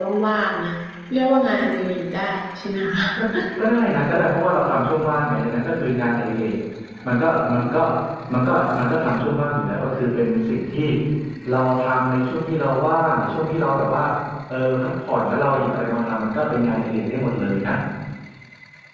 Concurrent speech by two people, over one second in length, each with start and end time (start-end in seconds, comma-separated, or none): none